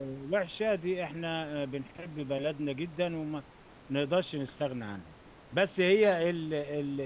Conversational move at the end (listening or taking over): listening